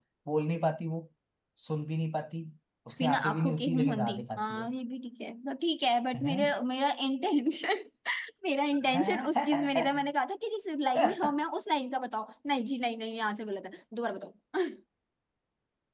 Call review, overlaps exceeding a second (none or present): present